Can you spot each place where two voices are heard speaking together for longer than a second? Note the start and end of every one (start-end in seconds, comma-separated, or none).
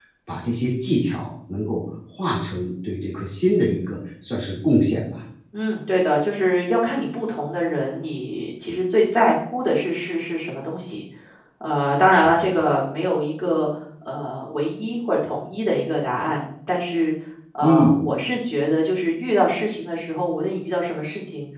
none